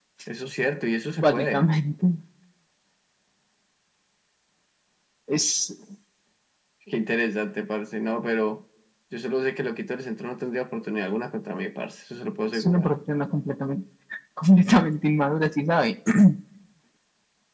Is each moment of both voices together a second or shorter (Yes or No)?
Yes